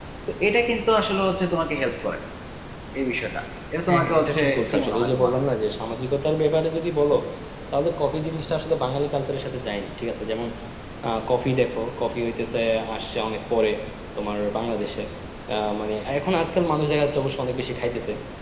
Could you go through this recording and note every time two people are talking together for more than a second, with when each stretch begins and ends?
3.9-5.3

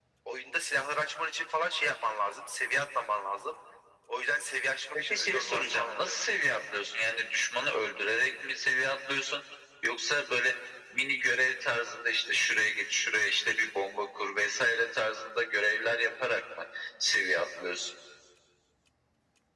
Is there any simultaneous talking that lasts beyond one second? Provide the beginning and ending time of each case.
4.9-6.2

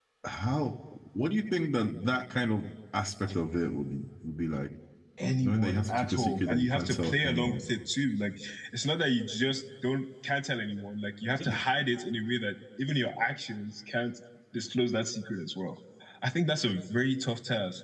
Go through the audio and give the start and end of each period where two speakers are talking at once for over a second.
5.4-7.6

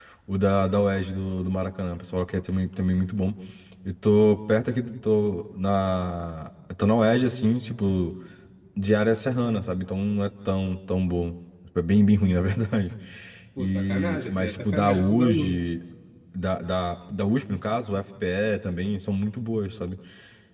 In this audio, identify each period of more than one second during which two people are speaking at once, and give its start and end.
13.6-15.6

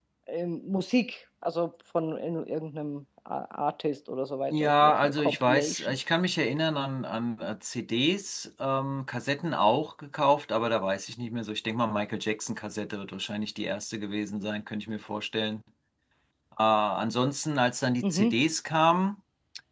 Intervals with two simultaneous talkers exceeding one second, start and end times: 4.5-6.0

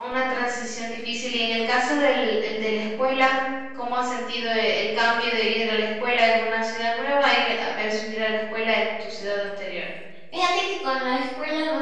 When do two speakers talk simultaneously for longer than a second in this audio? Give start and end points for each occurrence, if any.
none

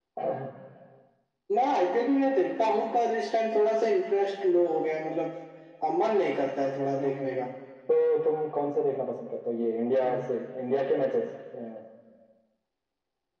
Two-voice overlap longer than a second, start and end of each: none

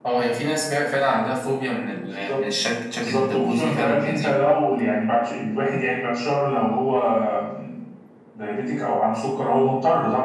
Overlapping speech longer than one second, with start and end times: 3.0-4.3

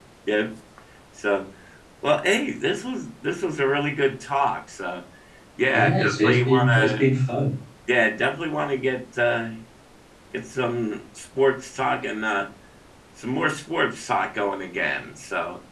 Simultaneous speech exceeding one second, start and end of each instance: 5.7-7.0

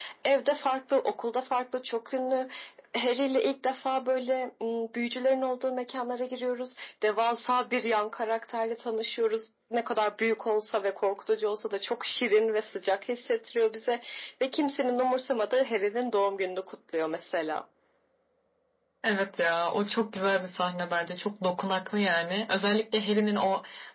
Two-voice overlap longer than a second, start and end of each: none

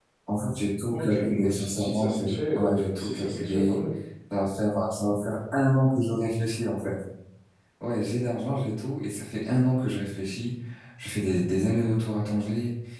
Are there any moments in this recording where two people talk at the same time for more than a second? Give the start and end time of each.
0.9-2.2, 2.6-3.8

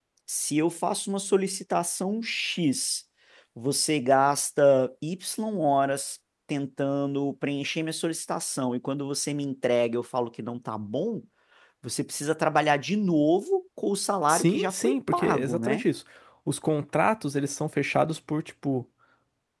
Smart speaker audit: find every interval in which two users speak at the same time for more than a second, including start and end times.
14.3-15.8

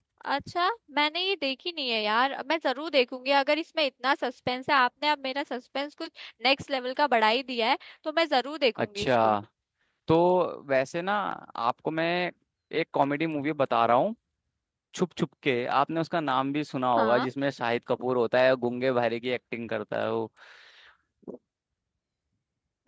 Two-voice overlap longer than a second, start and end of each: none

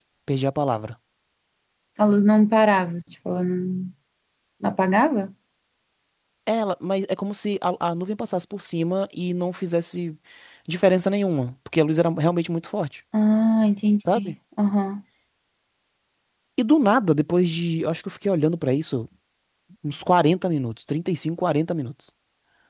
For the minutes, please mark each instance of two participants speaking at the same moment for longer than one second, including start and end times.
none

